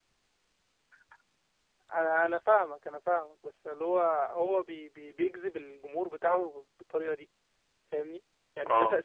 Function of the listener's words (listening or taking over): listening